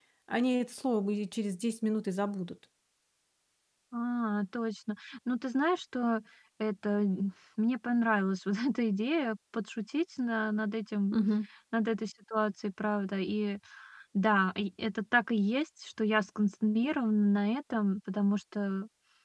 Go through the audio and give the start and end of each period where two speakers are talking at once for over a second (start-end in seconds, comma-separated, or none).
none